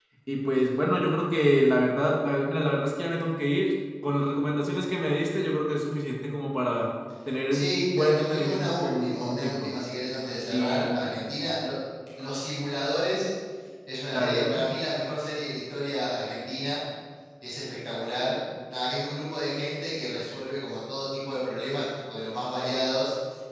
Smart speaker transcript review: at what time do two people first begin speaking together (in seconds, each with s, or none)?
7.5 s